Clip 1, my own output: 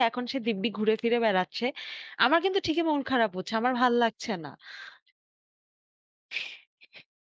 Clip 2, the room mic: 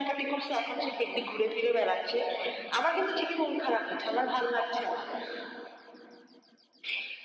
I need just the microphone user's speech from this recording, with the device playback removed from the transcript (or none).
none